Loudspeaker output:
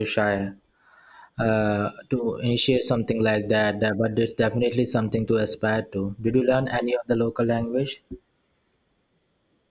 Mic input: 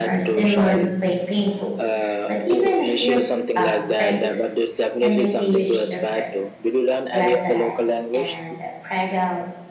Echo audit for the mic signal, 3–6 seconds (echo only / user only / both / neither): both